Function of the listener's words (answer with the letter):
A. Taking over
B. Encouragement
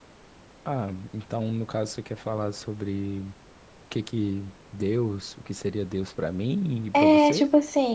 A